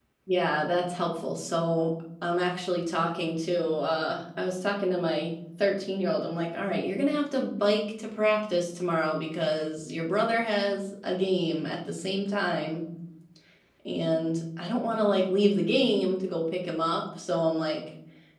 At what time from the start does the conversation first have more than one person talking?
none

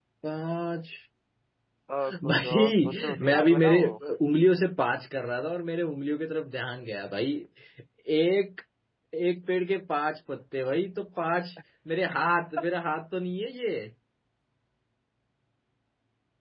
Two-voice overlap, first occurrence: 2.2 s

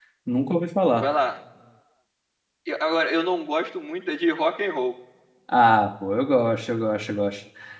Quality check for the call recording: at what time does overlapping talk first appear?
none

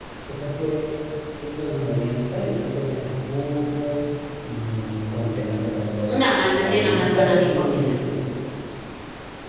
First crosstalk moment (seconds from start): 6.1 s

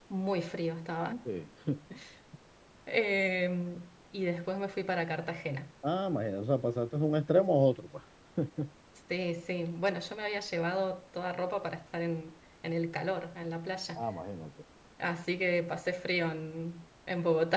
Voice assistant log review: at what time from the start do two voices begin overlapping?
none

